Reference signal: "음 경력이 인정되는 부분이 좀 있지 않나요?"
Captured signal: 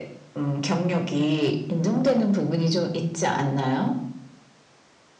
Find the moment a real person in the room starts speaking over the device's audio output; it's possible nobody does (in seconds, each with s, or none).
none